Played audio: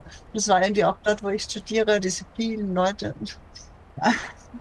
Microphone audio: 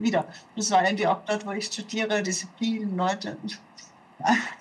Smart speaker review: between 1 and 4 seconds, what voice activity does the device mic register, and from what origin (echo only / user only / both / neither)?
echo only